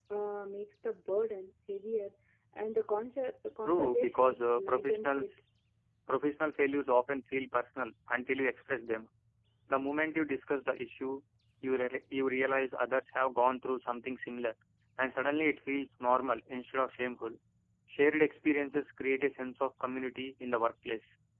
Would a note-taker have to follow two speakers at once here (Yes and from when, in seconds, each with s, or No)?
Yes, from 3.6 s